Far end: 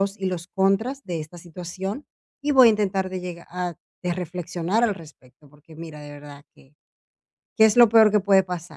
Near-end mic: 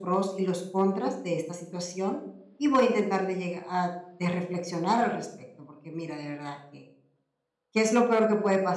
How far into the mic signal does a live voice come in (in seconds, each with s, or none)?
none